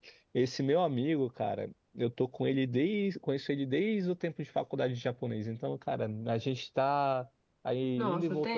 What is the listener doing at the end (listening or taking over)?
listening